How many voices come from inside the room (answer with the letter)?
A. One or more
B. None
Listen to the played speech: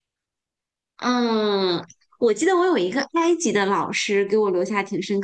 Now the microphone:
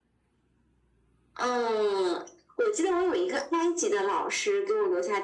B